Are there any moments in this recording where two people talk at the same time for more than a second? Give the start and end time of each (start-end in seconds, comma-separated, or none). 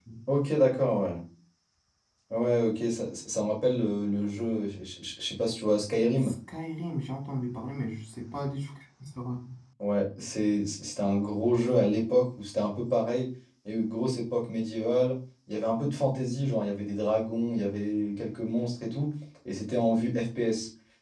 none